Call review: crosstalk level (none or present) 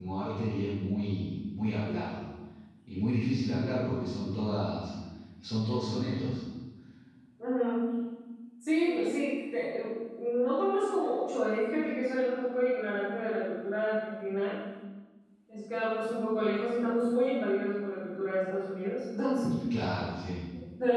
none